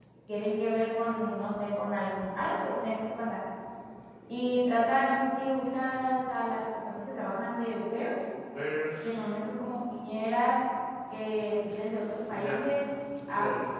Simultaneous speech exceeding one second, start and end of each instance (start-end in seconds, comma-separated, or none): none